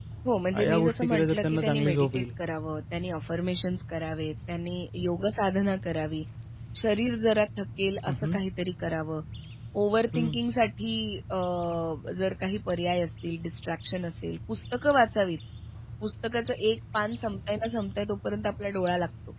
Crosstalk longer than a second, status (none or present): present